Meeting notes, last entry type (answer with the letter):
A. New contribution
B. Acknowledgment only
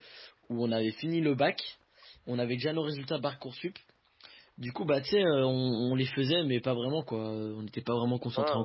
A